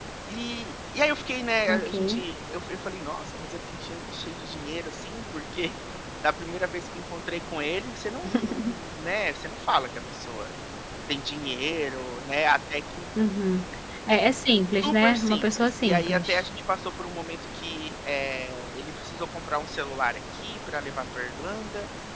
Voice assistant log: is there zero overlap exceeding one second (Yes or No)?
No